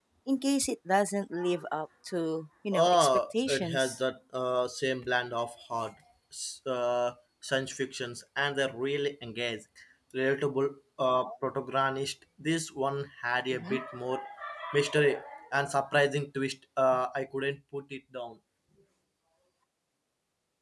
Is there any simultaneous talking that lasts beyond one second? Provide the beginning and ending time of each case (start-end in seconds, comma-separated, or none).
2.8-4.0